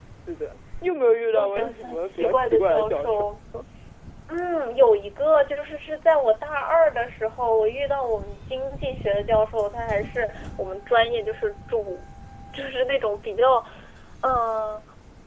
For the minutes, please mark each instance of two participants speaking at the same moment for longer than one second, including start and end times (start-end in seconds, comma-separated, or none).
1.3-3.2